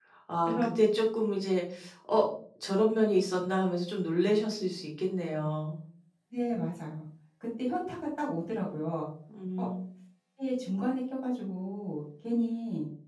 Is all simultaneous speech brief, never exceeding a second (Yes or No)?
Yes